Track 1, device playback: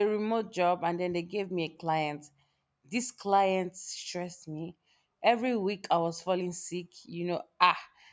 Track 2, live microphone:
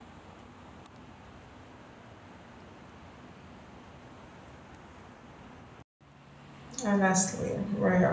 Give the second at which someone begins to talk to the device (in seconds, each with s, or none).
6.8 s